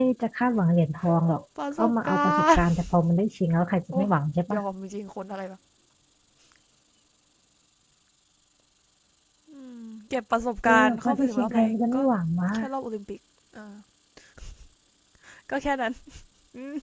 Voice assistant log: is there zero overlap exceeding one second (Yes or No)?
No